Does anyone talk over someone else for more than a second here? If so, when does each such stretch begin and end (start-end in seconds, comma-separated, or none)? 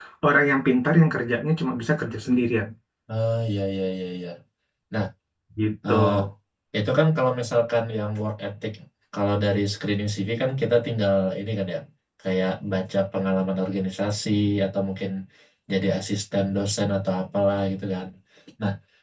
none